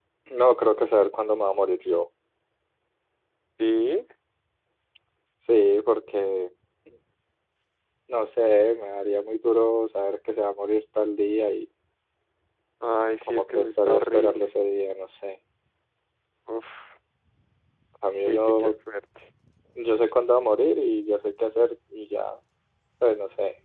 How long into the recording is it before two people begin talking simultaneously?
13.2 s

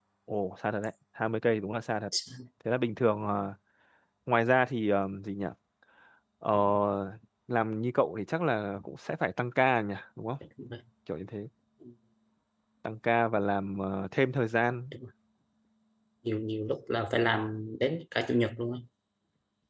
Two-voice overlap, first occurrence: none

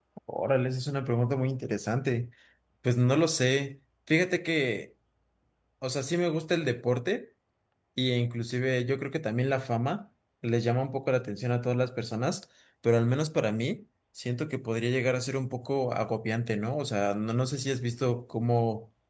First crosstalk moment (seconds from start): none

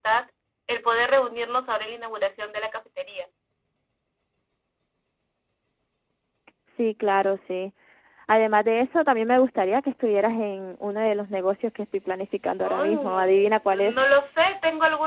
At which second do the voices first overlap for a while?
12.6 s

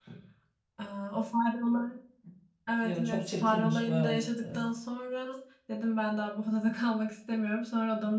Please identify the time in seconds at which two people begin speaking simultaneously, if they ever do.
2.8 s

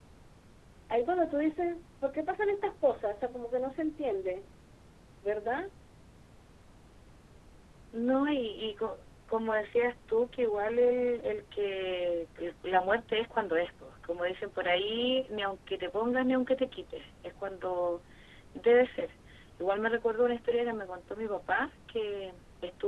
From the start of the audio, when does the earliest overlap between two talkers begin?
none

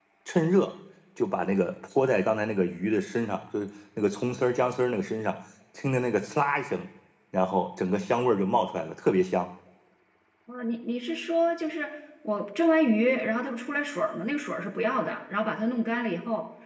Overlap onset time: none

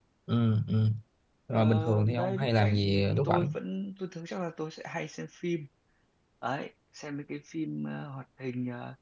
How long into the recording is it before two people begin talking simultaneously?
1.5 s

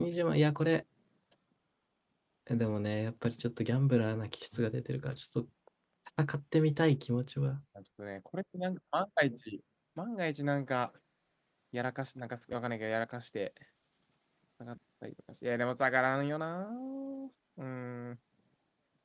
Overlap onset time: none

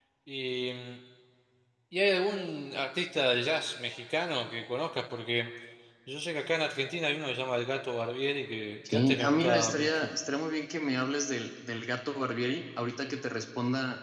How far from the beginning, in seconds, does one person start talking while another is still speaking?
8.8 s

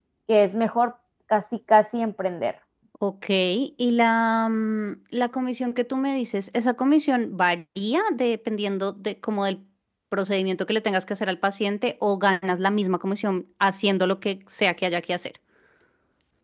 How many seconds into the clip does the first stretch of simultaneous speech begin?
none

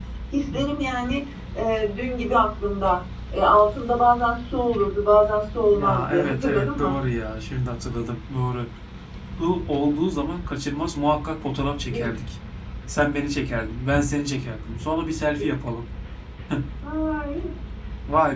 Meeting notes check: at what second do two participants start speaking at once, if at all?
5.7 s

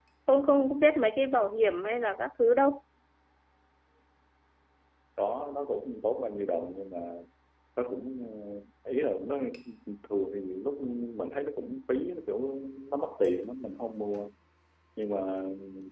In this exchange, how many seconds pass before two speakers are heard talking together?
none

